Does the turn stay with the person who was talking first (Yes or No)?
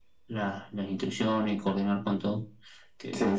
No